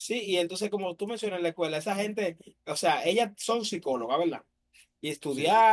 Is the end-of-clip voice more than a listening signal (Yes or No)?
No